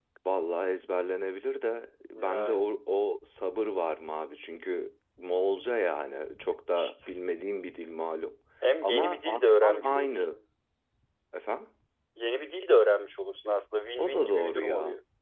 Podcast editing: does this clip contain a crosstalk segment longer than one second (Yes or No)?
Yes